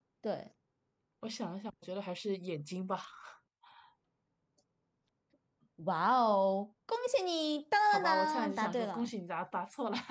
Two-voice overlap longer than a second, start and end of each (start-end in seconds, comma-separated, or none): 7.9-9.1